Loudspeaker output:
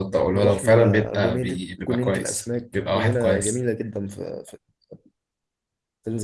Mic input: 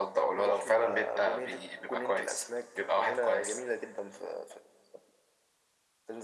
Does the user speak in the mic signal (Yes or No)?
No